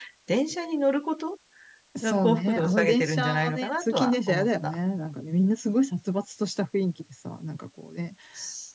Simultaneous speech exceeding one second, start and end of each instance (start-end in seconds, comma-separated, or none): 2.0-4.8